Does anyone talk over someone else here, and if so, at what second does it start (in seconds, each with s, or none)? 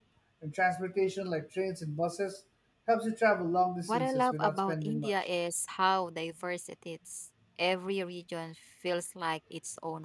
3.9 s